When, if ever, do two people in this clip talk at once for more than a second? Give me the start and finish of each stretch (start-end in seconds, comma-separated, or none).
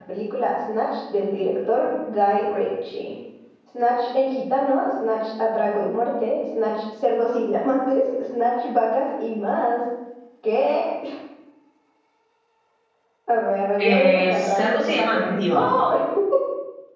13.8-15.6